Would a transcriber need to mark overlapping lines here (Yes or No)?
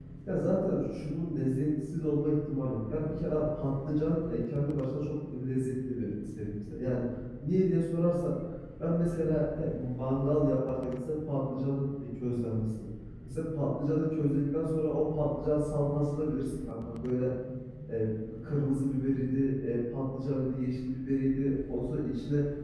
No